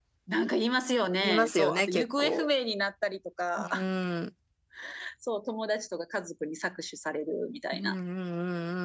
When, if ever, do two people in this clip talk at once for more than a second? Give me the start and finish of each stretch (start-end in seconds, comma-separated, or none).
1.2-2.5